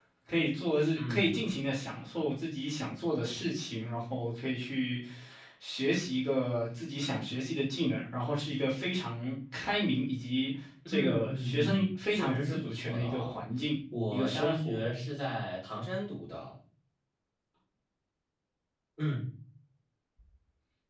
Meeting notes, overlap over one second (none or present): present